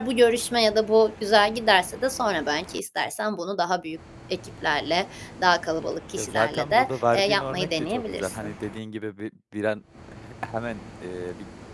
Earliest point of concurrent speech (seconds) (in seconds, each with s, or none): 6.2 s